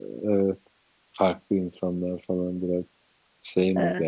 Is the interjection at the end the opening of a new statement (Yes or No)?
Yes